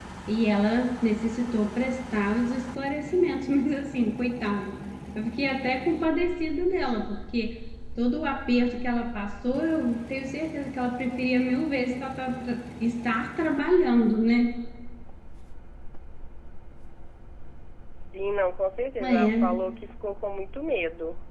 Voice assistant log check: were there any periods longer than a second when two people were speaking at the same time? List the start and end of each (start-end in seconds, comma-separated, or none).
none